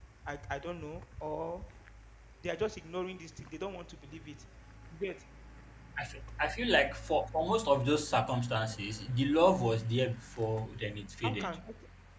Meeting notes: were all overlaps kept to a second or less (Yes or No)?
Yes